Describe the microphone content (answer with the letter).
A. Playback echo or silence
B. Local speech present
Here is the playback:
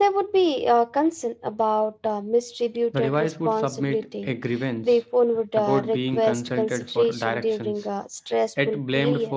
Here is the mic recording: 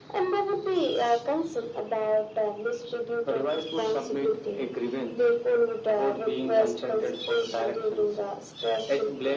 A